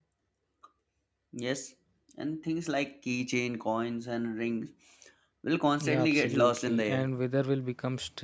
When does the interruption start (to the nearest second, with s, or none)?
6 s